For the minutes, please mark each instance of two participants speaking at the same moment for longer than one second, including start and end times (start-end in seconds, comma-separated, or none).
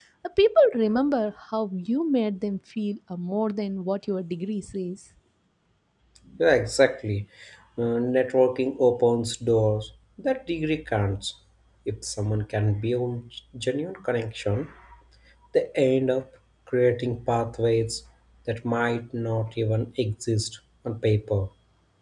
none